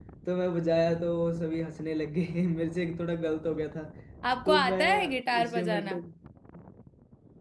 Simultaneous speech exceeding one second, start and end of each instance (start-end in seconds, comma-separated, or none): 4.5-6.0